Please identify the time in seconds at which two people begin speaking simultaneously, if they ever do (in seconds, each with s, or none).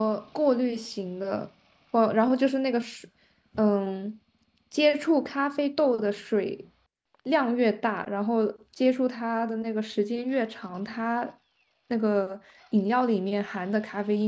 none